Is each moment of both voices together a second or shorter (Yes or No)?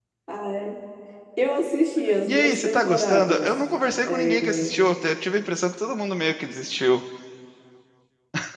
No